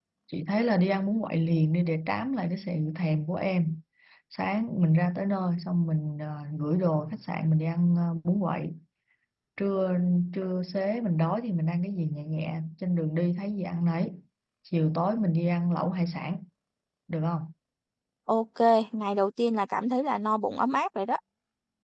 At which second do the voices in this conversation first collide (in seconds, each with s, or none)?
none